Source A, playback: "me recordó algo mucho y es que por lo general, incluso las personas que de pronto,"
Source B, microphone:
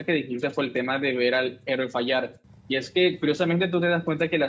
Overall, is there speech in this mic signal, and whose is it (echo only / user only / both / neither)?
user only